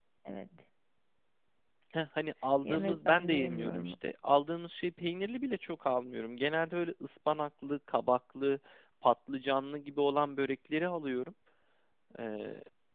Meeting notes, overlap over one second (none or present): present